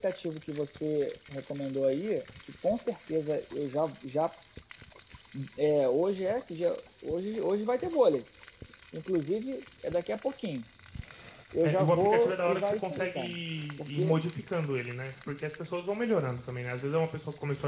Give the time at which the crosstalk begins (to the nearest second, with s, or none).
12 s